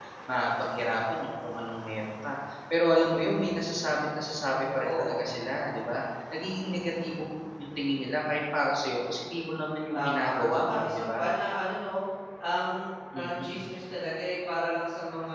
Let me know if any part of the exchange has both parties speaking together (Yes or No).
Yes